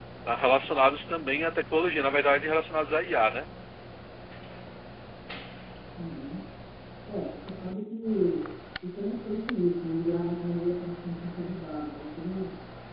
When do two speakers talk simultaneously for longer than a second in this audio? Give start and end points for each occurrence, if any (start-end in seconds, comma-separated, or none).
none